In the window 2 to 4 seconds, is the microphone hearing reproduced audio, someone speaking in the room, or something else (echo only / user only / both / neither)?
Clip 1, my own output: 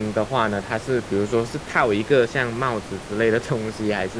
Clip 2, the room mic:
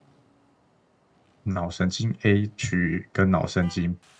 user only